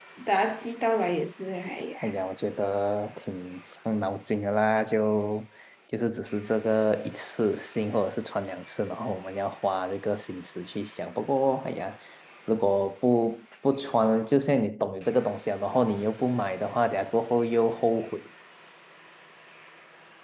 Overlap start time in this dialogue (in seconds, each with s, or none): none